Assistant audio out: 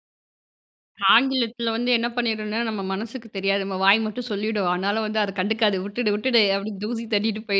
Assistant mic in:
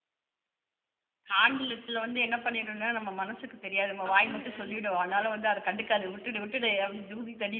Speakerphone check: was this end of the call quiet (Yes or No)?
No